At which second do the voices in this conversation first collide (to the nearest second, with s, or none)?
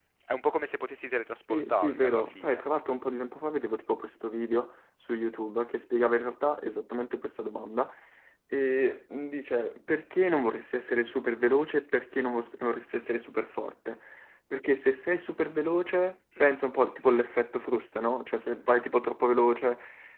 1 s